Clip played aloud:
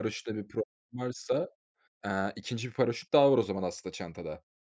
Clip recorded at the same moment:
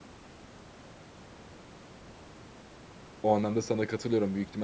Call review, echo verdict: none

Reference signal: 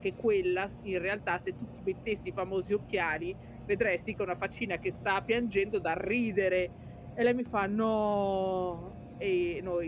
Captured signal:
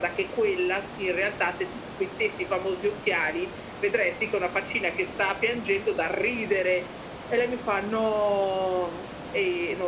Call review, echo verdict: present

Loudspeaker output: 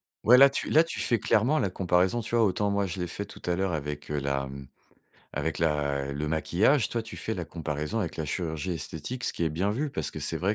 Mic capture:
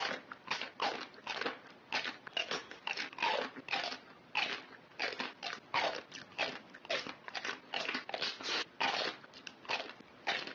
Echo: none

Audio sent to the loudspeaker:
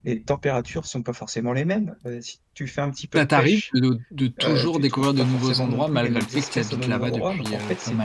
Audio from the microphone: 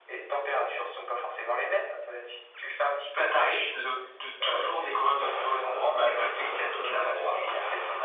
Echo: present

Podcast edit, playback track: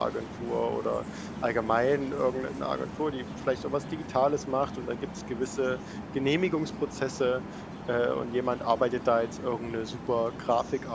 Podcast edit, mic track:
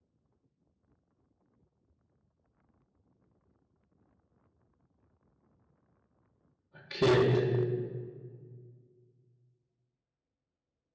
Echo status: none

